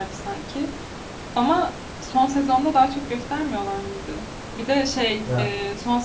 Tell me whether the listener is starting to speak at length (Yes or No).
No